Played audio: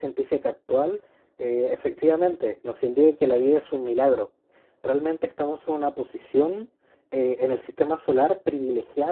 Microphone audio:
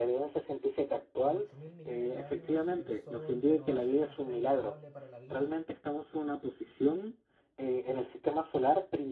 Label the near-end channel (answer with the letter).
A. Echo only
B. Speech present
B